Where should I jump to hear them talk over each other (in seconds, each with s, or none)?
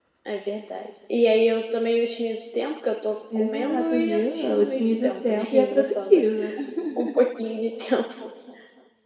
3.4 s